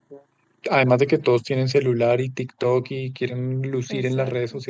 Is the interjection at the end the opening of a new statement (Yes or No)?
No